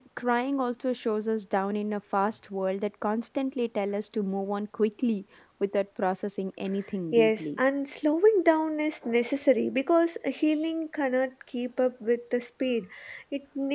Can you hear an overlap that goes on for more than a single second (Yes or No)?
No